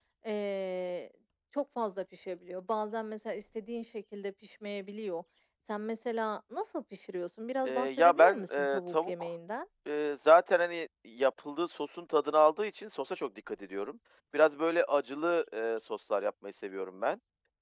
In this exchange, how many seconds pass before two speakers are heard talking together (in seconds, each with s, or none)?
7.6 s